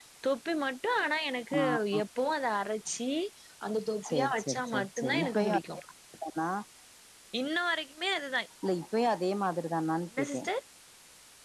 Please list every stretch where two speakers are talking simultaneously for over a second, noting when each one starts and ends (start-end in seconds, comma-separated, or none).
4.1-5.8